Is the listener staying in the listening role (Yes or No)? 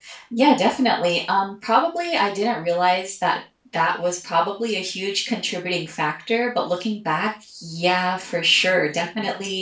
Yes